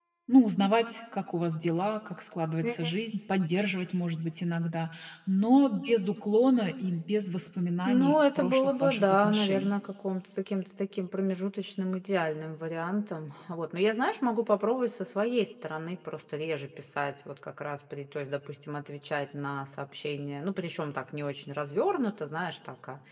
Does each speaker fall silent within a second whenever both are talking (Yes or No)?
No